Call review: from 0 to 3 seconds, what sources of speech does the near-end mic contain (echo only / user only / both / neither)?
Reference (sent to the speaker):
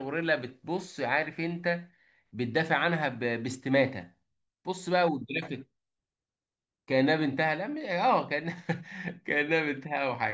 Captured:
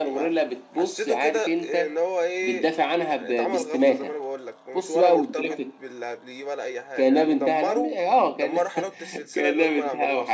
both